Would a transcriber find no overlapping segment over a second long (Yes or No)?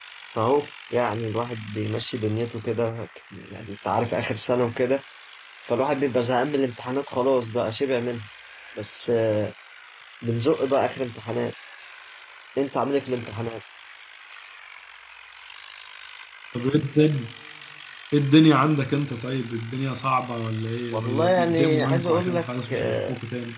No